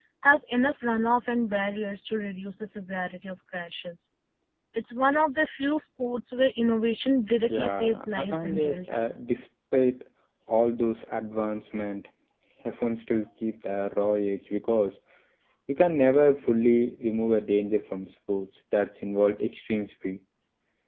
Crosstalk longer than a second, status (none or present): present